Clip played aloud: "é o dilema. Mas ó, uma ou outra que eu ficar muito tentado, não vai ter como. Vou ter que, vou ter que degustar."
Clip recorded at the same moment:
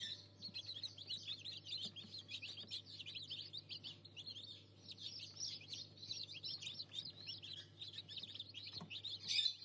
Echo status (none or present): none